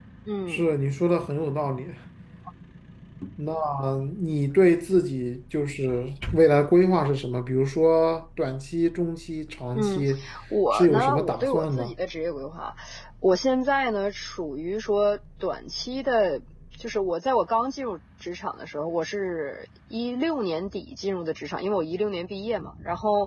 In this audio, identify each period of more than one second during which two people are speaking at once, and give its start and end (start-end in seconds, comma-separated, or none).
10.7-11.9